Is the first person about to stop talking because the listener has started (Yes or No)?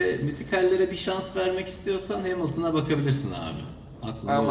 Yes